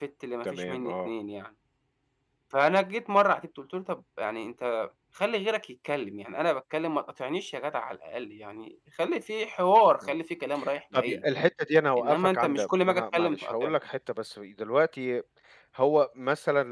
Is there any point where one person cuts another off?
Yes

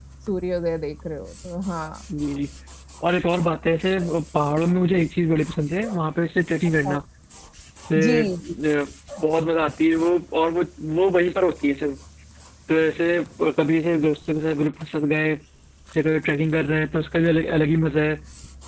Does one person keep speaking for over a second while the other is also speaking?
No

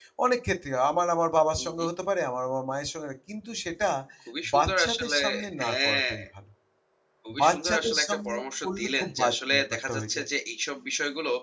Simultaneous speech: Yes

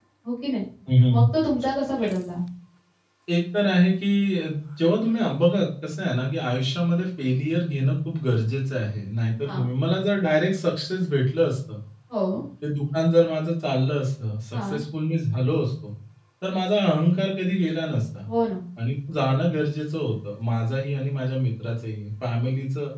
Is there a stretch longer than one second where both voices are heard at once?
No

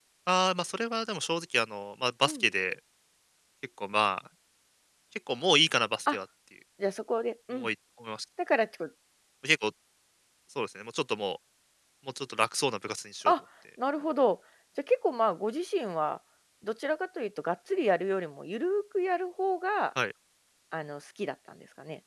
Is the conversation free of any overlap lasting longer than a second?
Yes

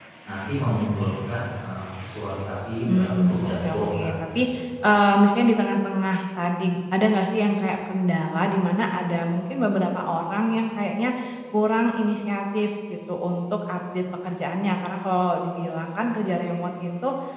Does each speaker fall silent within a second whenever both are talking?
No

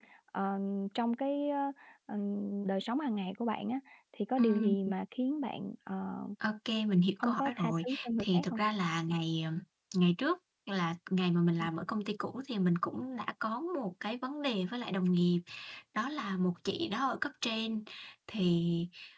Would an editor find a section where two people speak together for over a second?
Yes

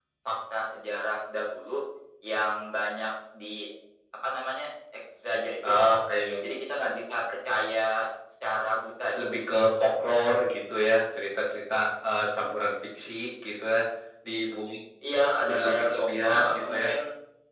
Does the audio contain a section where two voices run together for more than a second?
Yes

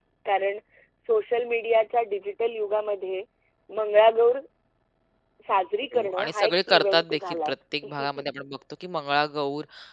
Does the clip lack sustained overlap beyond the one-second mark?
No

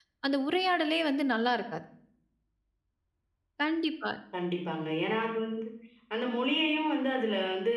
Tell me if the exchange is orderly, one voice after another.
Yes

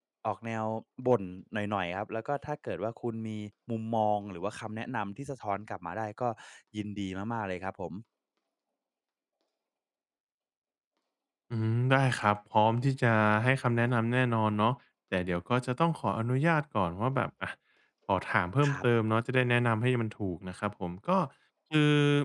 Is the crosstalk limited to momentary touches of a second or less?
Yes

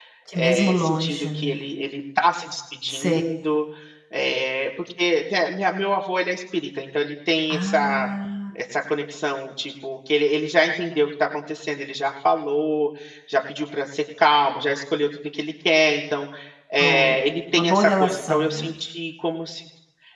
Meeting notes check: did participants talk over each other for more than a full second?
Yes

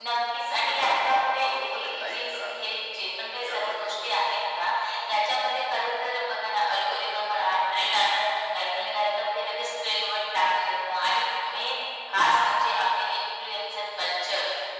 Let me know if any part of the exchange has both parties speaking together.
Yes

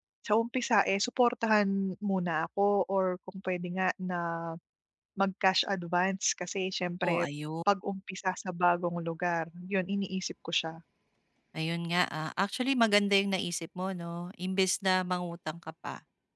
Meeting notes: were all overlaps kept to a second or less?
Yes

